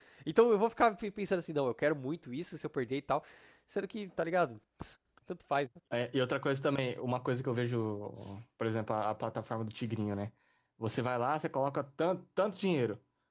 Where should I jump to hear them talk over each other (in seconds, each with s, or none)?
none